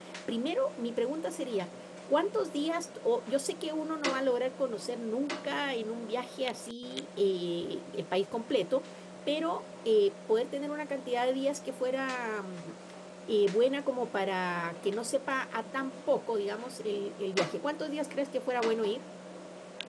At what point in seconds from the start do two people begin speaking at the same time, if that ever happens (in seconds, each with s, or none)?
none